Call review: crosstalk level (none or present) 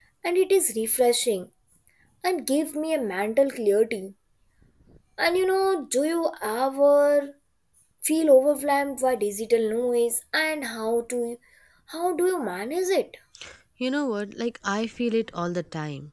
none